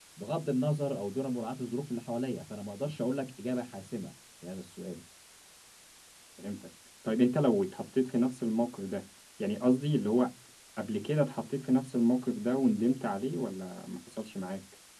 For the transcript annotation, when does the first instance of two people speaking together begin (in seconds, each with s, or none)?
none